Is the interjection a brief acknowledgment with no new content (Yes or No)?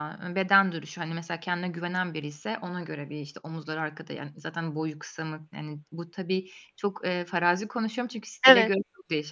Yes